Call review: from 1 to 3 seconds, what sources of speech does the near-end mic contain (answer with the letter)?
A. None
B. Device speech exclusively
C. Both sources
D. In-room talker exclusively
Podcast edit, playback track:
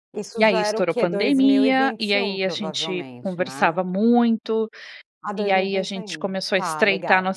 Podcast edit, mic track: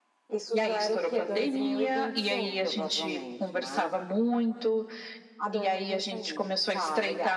B